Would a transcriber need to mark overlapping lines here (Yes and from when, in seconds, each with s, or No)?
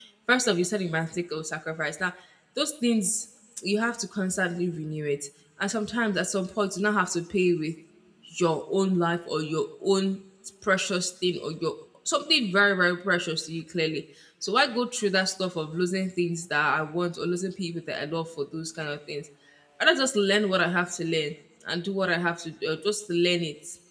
No